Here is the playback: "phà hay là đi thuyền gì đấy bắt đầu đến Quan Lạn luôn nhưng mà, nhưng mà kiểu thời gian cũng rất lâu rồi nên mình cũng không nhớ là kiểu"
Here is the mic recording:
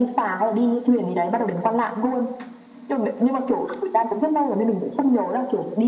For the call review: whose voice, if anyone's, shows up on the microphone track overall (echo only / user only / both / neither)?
echo only